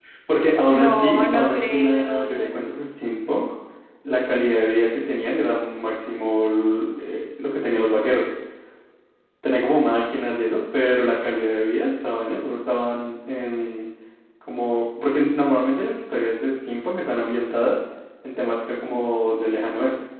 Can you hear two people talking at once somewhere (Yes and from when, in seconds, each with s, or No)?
Yes, from 0.7 s